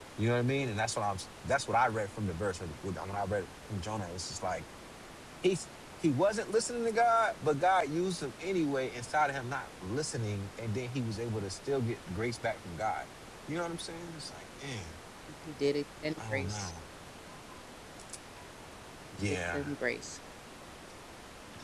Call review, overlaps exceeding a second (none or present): none